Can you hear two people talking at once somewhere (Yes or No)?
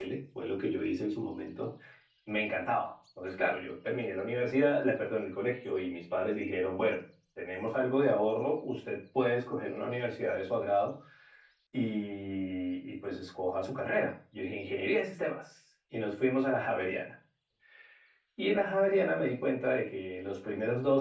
No